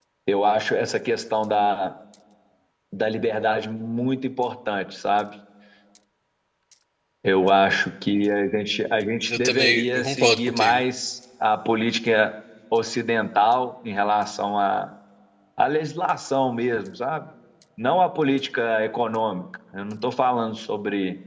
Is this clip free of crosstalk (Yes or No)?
No